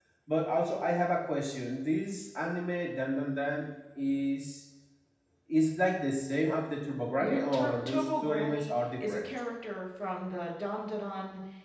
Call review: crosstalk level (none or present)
present